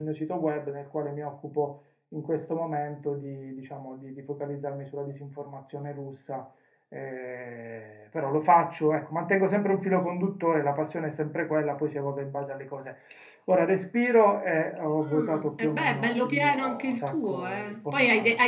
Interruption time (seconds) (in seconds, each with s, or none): 15.0 s